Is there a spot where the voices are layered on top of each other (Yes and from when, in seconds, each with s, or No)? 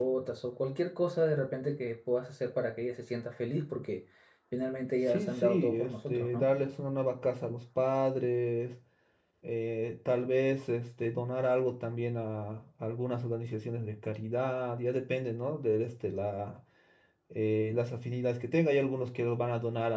Yes, from 5.1 s